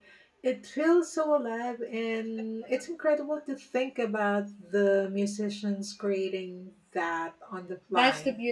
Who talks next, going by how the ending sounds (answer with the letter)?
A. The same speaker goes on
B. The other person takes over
B